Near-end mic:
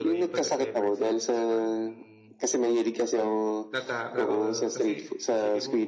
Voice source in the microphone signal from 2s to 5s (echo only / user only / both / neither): both